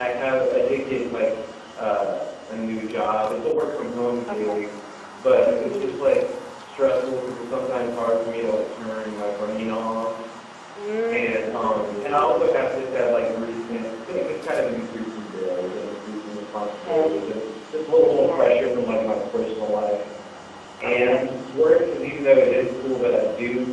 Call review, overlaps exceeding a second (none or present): present